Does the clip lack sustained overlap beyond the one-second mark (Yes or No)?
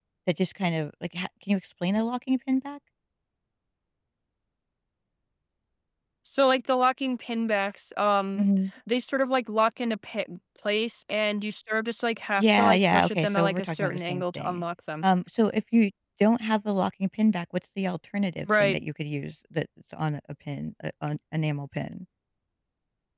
No